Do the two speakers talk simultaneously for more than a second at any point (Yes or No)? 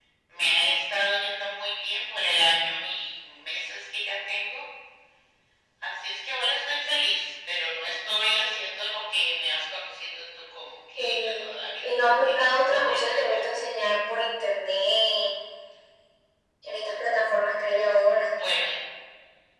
Yes